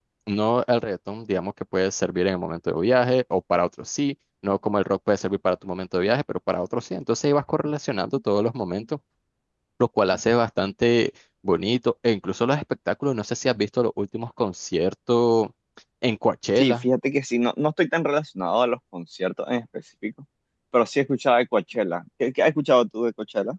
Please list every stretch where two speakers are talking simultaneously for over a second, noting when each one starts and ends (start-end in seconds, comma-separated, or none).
none